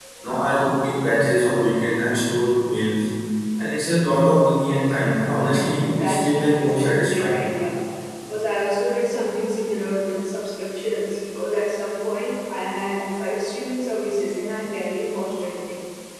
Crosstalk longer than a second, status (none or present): present